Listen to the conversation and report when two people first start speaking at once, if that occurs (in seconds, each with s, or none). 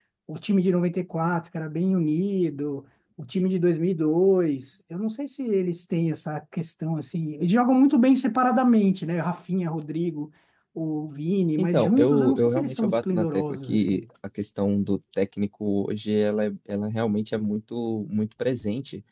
11.6 s